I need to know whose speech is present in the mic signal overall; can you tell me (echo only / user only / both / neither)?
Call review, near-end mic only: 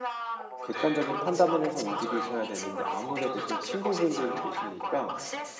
both